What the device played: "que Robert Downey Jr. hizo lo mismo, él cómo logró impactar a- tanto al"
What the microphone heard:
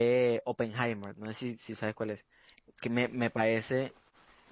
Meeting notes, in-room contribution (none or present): present